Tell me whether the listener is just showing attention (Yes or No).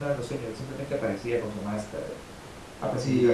No